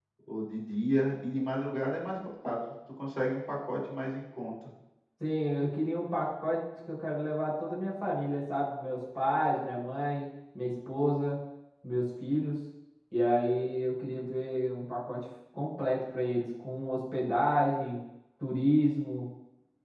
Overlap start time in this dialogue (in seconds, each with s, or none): none